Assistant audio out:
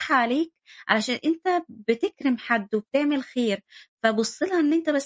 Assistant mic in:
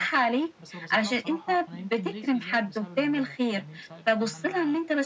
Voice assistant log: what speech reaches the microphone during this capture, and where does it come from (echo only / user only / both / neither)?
both